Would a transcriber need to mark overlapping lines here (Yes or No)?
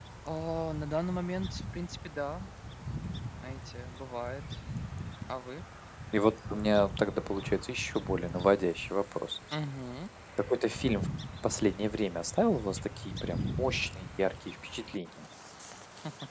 No